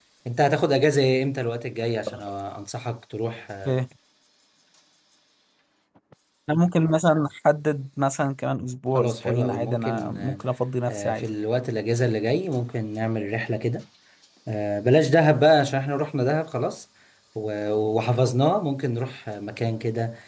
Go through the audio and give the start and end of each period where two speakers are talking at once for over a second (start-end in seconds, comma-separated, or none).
9.0-10.4